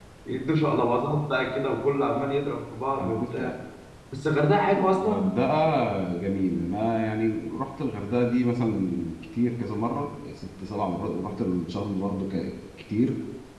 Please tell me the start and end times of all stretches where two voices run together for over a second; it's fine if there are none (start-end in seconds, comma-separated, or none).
none